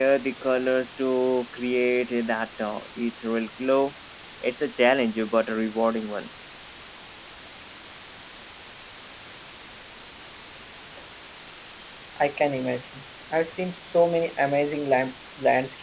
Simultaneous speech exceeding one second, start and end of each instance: none

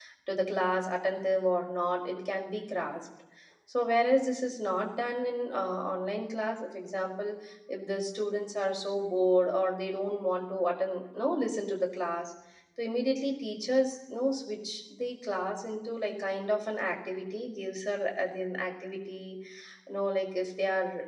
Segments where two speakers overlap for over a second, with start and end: none

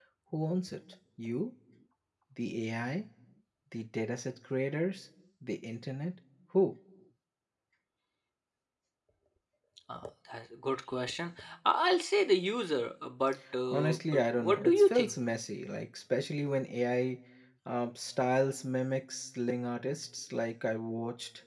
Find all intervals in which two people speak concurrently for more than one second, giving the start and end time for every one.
13.7-15.2

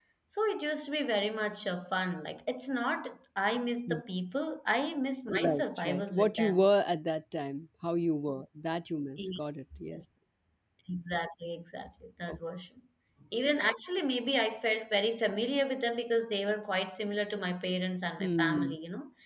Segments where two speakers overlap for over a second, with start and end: 5.3-6.7

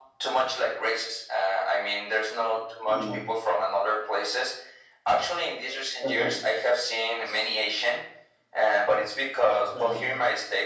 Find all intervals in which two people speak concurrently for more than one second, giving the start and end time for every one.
none

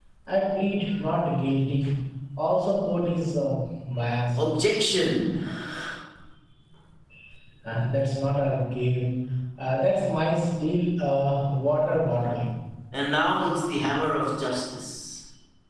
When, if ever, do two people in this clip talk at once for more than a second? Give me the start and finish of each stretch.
none

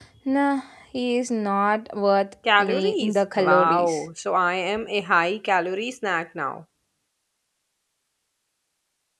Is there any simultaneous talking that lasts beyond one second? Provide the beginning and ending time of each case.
2.6-4.0

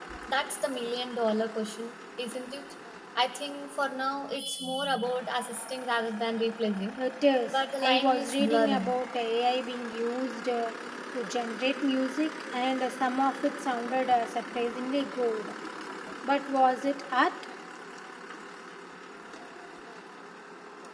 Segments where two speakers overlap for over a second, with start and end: 7.5-8.9

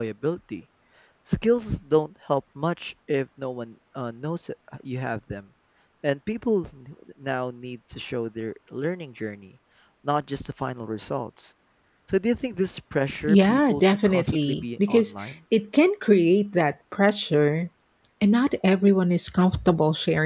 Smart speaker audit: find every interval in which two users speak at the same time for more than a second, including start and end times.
13.3-15.1

